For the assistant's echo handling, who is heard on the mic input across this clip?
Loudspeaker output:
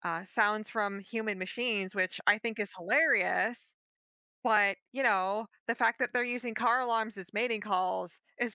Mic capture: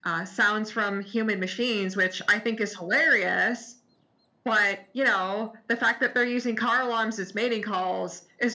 echo only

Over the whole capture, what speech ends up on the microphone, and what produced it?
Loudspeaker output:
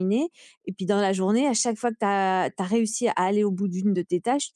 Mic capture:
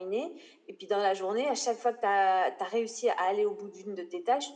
echo only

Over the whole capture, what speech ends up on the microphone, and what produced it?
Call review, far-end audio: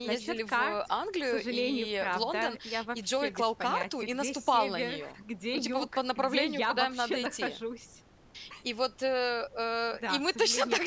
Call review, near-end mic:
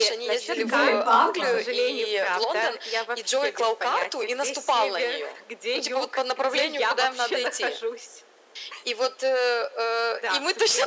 both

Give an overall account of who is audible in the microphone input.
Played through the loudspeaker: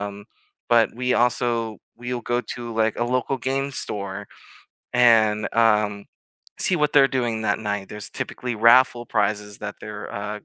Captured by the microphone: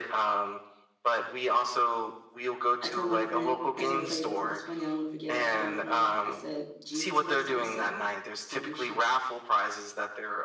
both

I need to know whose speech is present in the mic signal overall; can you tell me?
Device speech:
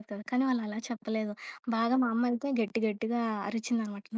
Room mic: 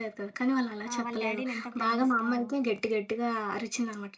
both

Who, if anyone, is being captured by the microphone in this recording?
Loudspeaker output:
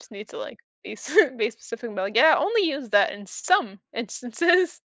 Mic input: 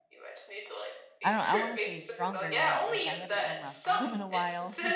both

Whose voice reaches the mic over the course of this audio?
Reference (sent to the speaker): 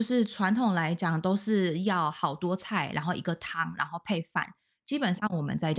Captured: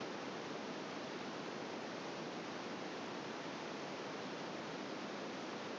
neither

